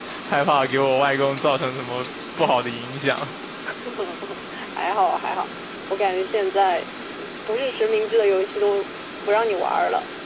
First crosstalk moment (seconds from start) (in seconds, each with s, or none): none